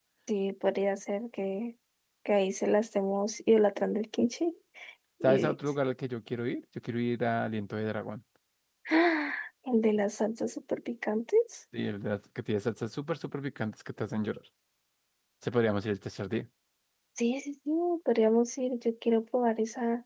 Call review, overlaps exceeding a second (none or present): none